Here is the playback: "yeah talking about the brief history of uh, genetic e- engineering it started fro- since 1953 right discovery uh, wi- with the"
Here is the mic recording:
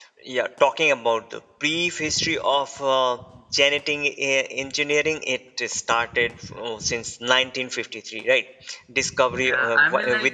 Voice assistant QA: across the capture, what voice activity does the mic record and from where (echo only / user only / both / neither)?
both